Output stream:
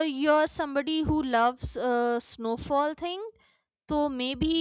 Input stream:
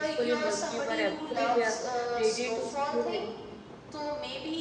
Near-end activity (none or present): present